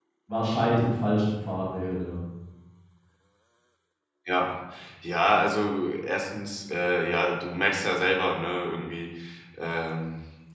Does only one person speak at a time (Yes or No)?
Yes